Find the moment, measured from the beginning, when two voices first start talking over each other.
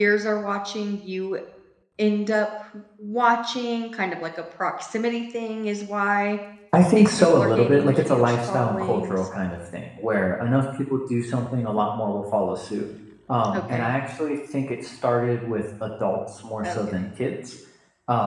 7.0 s

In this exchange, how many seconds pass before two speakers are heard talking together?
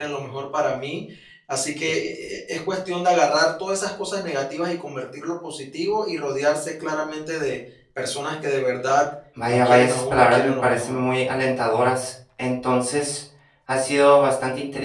9.5 s

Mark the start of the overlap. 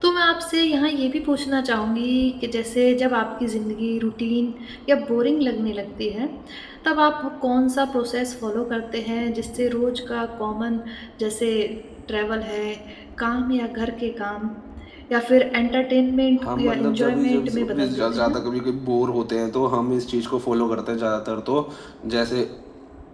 16.4 s

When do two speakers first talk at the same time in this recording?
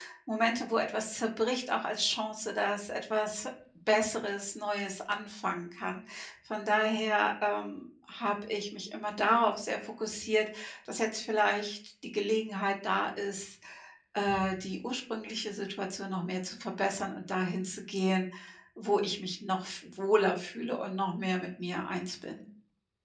none

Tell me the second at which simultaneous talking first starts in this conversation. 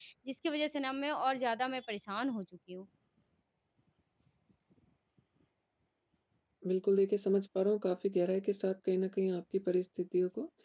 none

